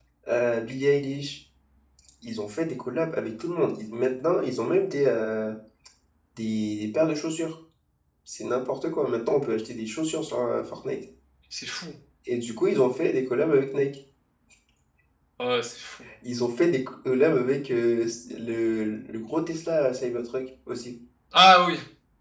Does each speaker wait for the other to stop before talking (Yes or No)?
Yes